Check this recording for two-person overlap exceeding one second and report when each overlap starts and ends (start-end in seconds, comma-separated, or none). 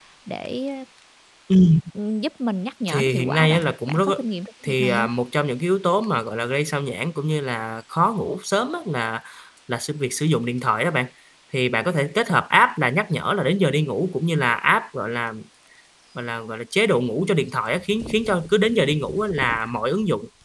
2.9-4.1